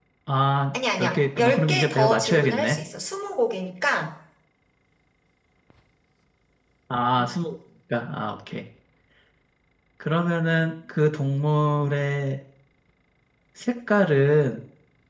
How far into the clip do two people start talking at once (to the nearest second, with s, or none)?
1 s